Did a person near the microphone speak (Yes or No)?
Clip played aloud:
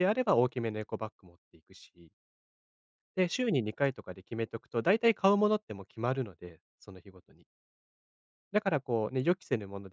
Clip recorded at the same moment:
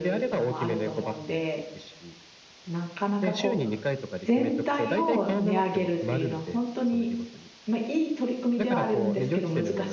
Yes